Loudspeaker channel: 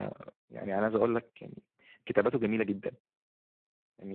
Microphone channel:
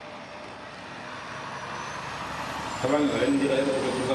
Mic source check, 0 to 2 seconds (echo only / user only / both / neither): neither